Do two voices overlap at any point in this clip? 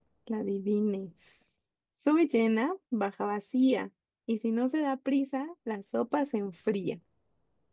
No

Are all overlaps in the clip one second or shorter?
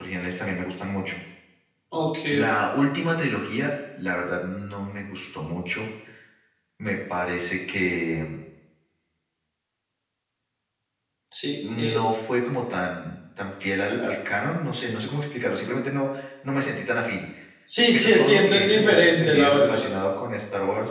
No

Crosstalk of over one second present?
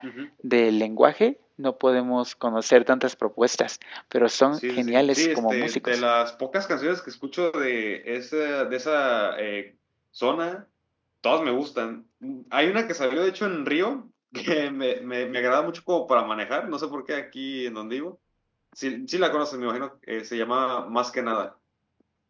Yes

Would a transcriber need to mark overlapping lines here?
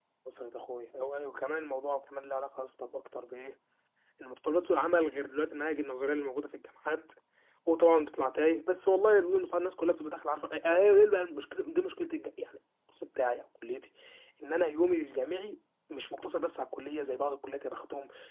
No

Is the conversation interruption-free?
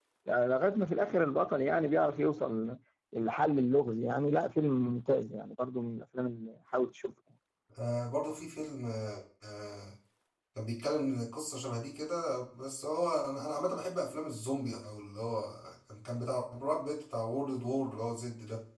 Yes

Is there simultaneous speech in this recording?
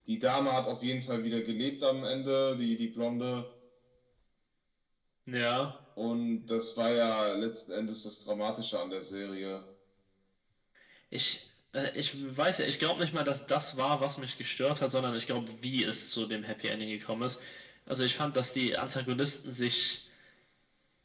No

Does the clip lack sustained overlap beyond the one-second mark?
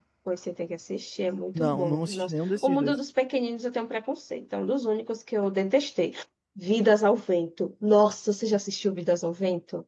No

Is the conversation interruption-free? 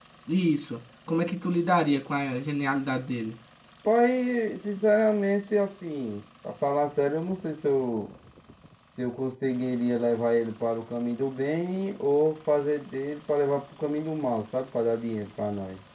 Yes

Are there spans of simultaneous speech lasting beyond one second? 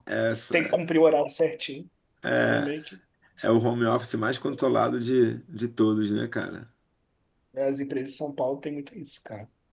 No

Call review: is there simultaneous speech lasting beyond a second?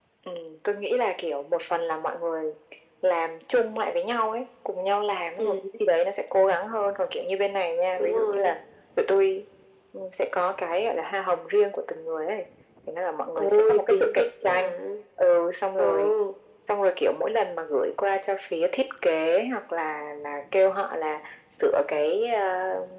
Yes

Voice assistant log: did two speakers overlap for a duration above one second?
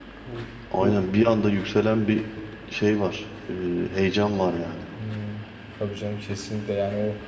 No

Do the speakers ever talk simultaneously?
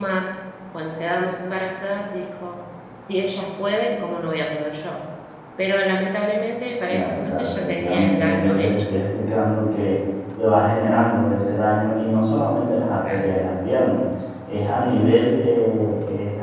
Yes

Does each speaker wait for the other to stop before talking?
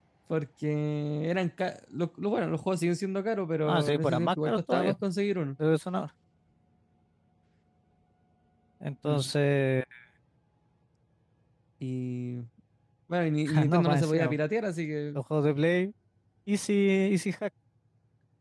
No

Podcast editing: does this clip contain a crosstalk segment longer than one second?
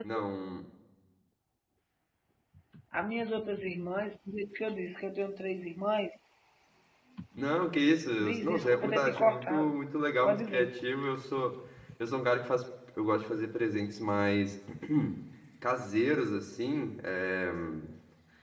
Yes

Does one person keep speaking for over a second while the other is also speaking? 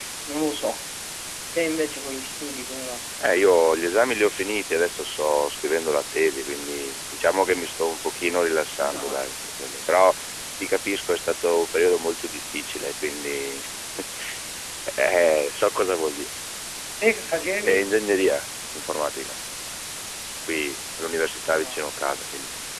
No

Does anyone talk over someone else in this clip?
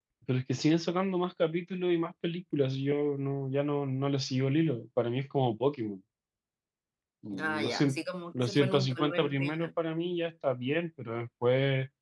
Yes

